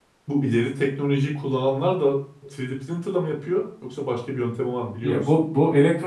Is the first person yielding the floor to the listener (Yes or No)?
Yes